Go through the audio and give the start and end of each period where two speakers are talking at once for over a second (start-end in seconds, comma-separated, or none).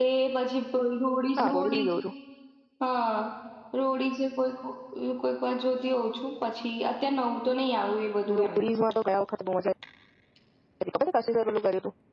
none